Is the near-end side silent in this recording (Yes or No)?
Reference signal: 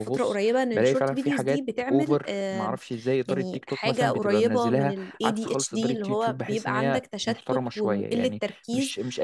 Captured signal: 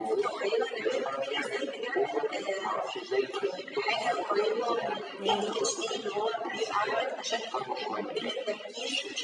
No